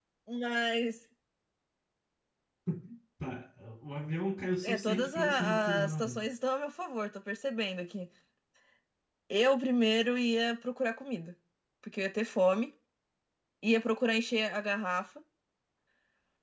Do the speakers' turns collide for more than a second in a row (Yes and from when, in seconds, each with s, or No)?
Yes, from 4.6 s